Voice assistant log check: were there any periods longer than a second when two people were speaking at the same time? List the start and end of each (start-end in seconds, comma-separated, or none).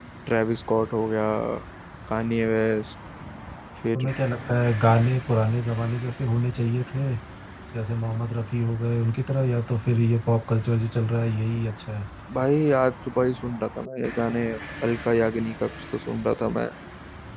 none